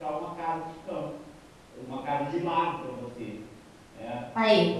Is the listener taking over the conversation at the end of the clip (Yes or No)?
No